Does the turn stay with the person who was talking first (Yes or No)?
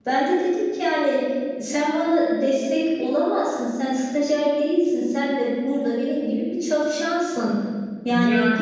Yes